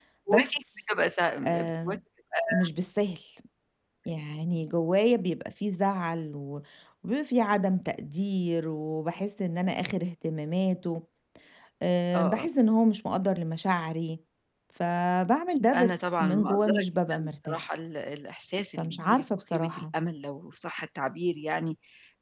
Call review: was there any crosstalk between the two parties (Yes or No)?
Yes